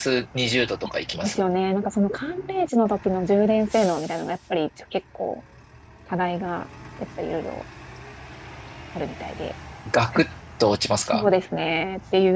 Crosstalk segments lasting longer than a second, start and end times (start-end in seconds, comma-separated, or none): none